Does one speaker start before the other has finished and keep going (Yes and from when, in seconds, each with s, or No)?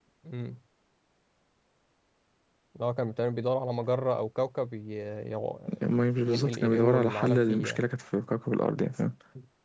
Yes, from 6.2 s